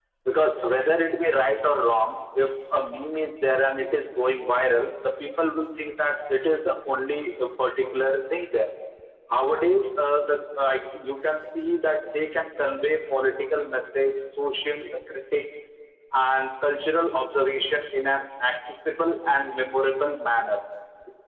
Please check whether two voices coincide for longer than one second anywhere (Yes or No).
No